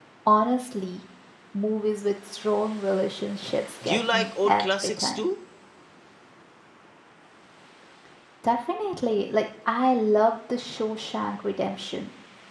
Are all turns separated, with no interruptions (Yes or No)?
No